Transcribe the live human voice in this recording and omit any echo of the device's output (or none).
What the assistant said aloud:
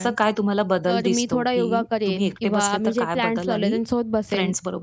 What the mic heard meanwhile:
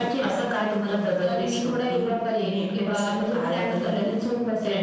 none